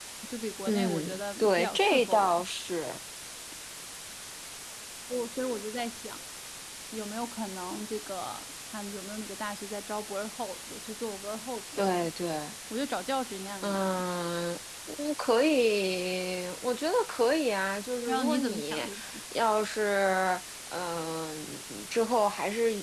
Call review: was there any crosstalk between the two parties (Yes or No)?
Yes